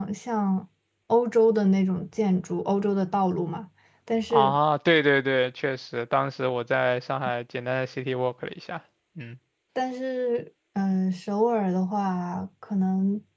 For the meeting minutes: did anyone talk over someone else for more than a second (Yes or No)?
No